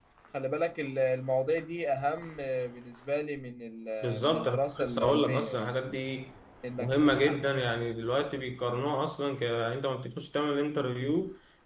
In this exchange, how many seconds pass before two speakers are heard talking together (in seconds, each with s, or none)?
4.0 s